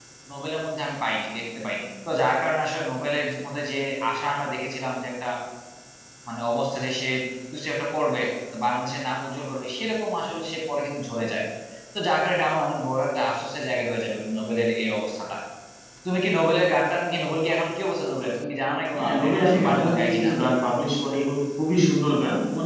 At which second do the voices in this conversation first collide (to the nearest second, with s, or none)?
19 s